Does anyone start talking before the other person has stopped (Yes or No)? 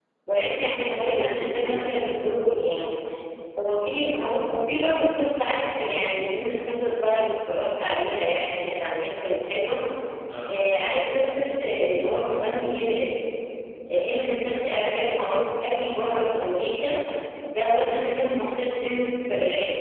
Yes